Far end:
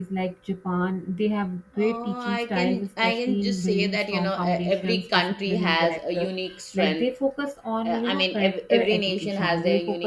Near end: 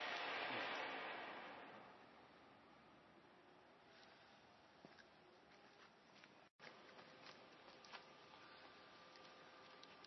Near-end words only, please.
none

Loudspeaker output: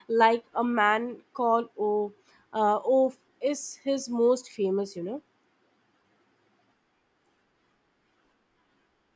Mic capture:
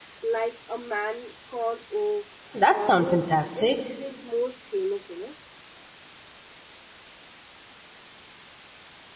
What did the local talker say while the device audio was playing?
That sounds fantastic.

